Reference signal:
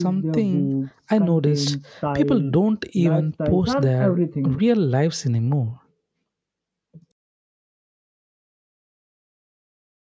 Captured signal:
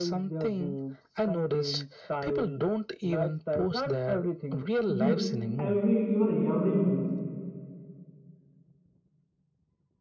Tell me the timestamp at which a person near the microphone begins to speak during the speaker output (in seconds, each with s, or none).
4.9 s